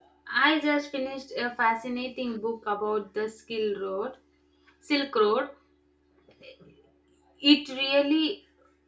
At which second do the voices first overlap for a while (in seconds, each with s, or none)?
none